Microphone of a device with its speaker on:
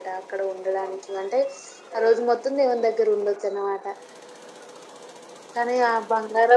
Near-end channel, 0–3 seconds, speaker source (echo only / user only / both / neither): echo only